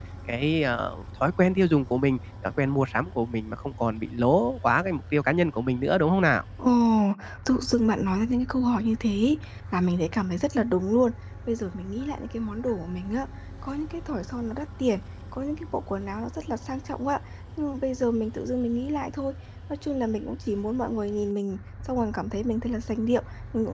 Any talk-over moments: No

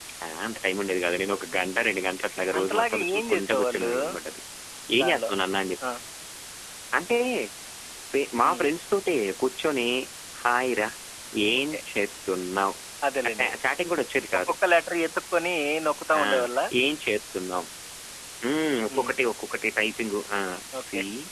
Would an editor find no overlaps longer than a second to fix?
No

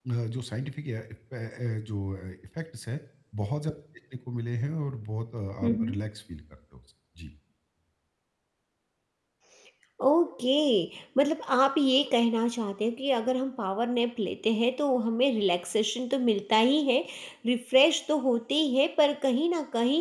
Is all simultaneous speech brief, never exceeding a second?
Yes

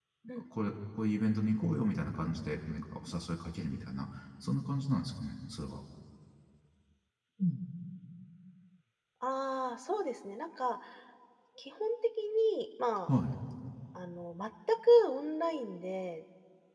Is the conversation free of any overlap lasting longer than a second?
Yes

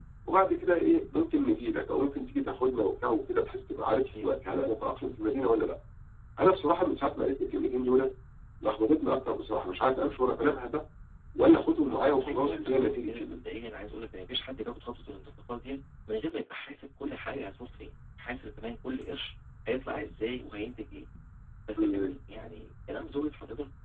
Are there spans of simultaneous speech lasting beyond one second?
Yes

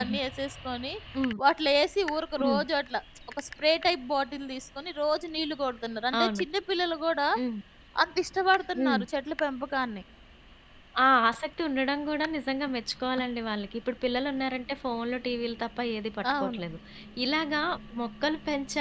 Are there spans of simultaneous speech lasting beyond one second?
No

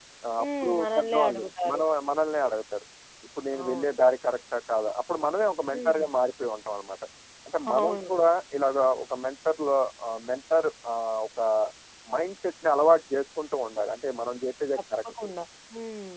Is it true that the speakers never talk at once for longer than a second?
No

